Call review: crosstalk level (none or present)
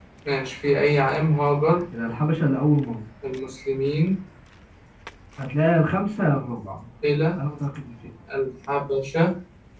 none